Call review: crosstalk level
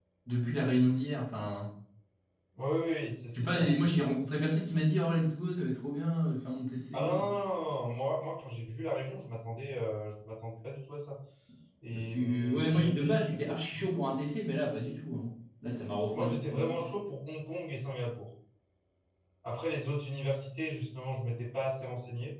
present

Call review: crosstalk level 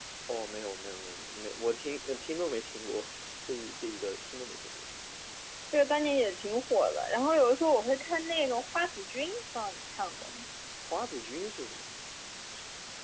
none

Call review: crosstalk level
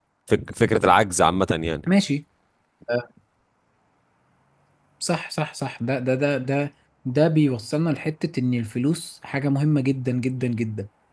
none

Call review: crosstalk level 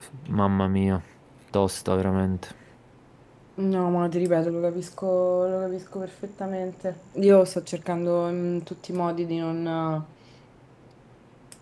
none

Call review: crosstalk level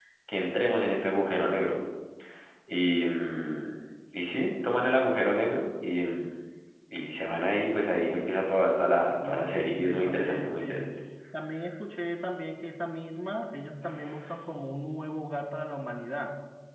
present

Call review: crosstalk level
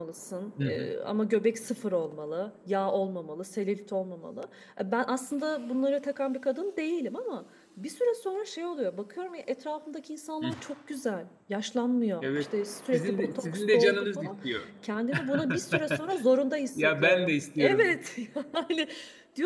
present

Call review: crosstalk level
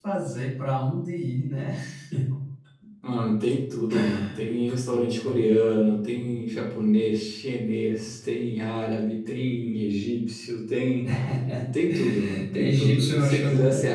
present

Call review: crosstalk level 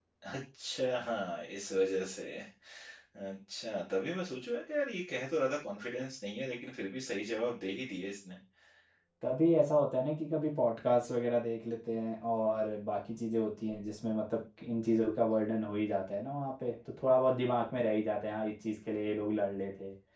none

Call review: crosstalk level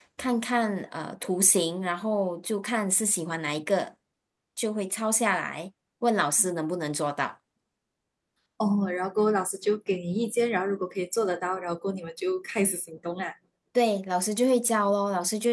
none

